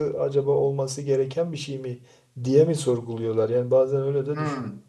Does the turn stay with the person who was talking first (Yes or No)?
No